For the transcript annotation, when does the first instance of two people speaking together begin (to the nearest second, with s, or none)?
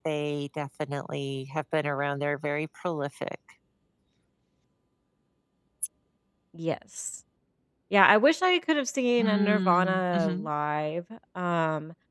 9 s